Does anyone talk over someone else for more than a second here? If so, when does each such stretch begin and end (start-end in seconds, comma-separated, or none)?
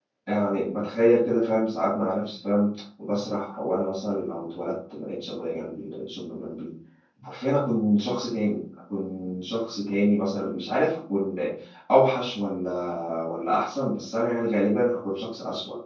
none